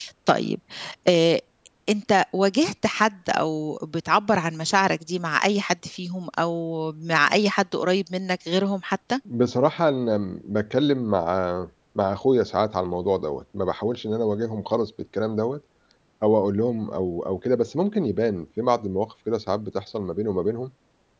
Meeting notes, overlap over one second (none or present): none